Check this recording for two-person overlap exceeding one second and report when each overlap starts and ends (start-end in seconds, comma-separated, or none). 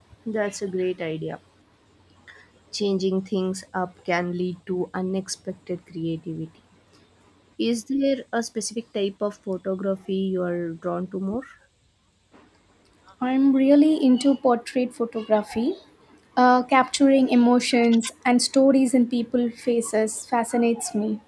none